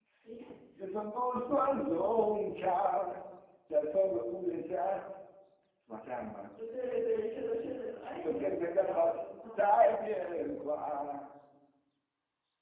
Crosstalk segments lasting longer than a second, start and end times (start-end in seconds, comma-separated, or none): 8.2-9.8